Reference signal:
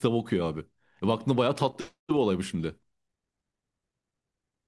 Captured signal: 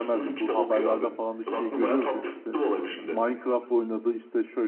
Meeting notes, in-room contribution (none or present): present